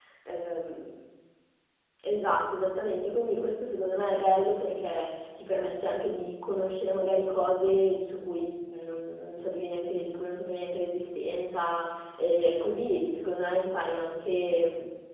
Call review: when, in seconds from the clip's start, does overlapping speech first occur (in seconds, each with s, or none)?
none